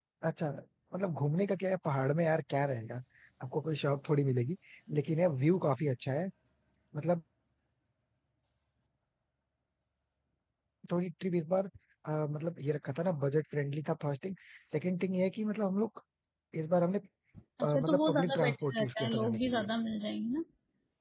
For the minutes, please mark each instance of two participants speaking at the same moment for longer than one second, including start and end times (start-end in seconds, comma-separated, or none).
17.6-19.7